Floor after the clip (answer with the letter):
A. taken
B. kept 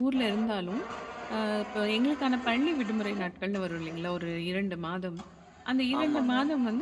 B